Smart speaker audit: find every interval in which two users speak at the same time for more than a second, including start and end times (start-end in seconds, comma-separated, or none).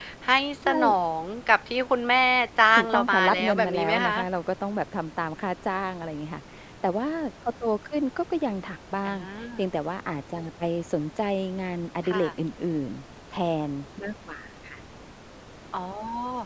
2.8-4.2